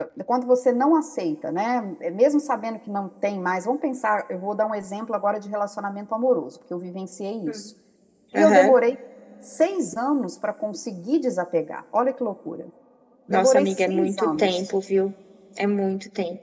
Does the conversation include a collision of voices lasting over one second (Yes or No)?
Yes